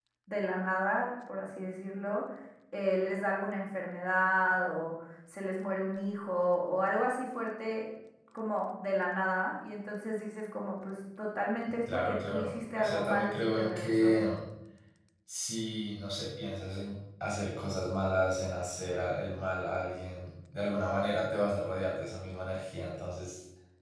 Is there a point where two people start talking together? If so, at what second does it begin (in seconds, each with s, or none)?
11.9 s